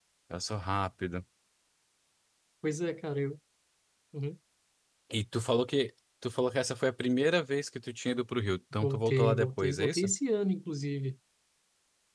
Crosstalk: present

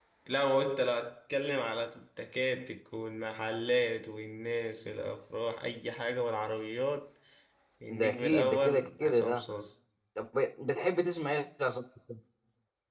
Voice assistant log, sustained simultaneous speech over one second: present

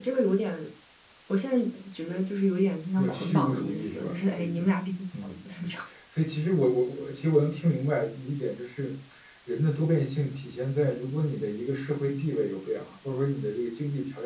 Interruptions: present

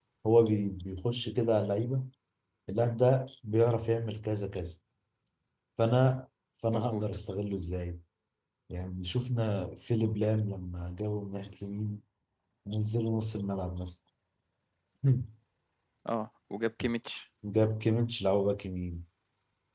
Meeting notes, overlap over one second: none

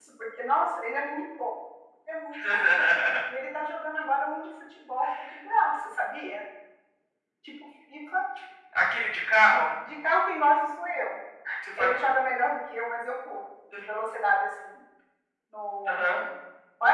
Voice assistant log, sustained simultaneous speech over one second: none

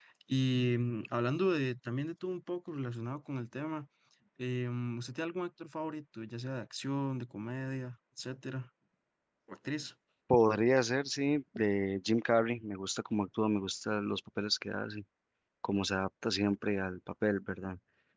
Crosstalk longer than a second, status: none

